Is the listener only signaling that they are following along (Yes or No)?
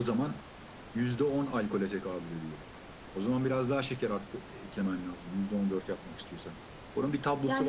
No